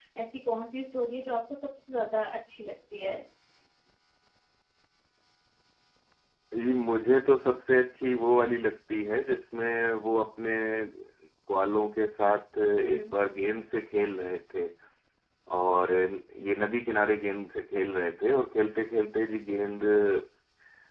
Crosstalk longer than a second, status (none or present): none